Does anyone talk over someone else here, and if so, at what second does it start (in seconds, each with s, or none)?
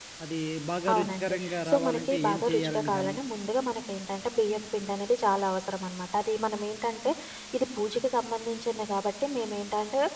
0.9 s